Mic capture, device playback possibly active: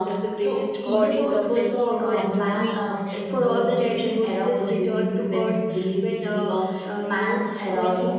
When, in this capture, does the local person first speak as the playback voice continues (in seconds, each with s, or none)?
0.9 s